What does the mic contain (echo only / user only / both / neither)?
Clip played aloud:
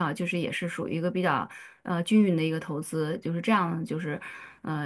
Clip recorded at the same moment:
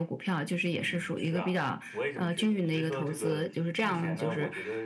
both